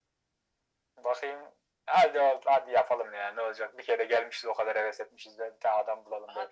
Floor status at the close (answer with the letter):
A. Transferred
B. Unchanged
A